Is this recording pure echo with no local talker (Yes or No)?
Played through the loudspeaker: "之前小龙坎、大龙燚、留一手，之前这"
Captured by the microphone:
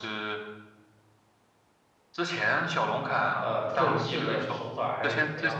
No